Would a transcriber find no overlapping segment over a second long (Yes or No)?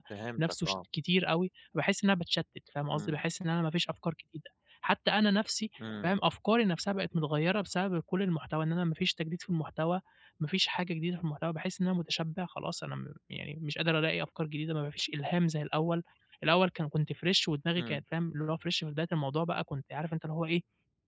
Yes